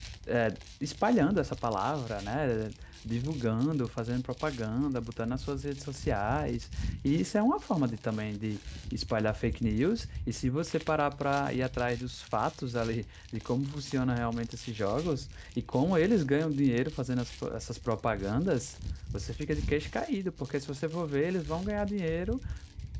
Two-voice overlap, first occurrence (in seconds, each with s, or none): none